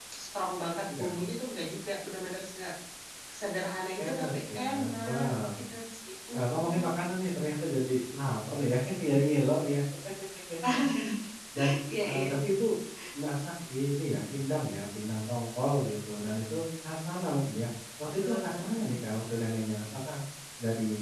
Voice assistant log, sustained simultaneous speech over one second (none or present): present